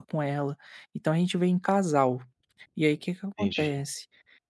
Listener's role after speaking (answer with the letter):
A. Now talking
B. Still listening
B